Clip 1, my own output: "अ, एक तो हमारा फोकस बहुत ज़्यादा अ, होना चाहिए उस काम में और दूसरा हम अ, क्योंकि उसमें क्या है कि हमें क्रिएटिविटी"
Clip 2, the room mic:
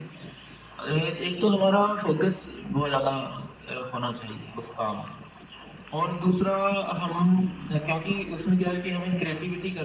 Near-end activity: none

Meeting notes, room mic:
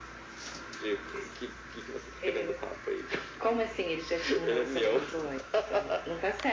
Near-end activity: none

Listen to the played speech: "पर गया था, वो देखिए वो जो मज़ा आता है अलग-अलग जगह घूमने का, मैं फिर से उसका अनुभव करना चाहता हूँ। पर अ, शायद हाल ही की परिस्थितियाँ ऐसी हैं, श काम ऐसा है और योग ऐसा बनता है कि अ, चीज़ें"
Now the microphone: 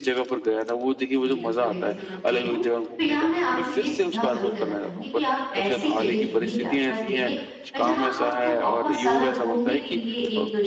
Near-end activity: present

